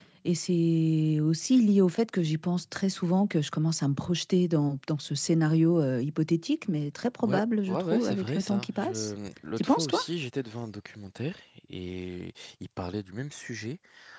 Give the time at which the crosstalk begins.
7.2 s

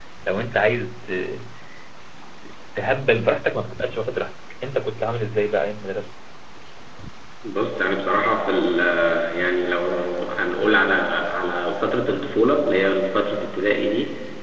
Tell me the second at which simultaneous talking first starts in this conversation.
none

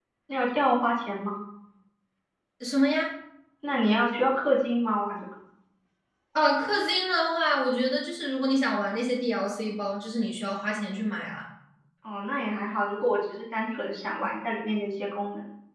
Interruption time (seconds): none

